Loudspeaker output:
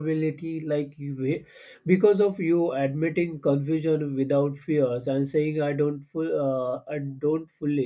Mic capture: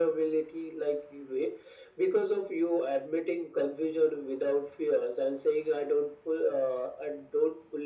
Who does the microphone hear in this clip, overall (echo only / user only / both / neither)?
echo only